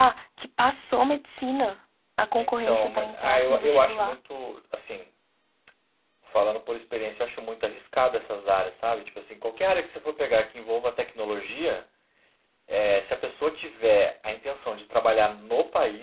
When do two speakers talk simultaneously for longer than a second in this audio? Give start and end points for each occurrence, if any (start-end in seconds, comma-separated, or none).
2.4-4.2